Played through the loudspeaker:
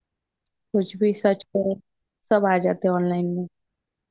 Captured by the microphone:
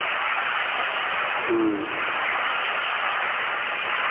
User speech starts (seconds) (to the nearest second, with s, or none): 1 s